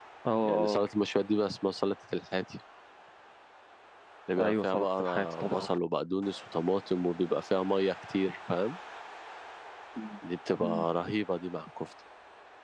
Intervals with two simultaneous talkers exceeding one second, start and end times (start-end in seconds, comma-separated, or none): 4.4-5.7